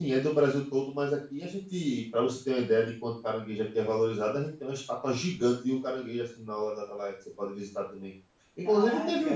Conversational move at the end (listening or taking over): listening